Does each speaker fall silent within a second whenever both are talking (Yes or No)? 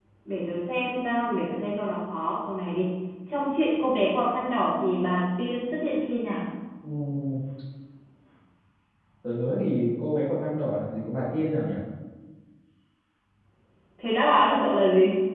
Yes